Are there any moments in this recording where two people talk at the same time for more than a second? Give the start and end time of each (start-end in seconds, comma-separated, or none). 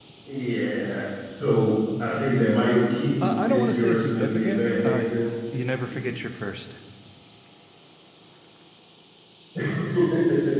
3.2-5.1